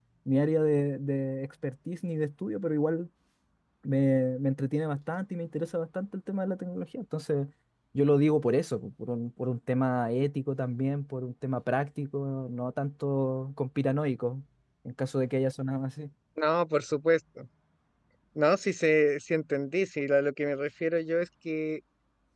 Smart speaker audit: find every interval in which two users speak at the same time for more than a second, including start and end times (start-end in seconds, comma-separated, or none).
none